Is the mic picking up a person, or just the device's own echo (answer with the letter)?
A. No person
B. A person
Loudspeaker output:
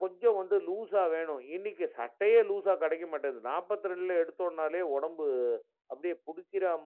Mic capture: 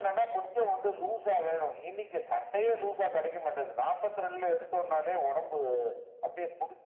A